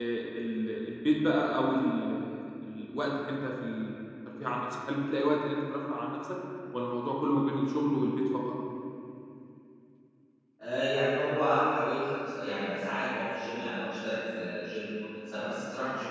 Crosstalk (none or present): none